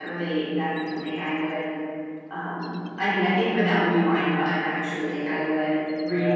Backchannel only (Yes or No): Yes